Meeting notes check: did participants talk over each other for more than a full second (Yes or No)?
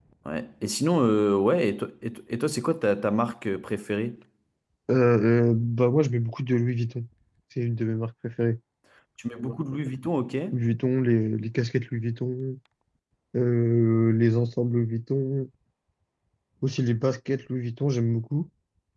No